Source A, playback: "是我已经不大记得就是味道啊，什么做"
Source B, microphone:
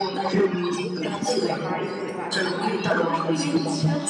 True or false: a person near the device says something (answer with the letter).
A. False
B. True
B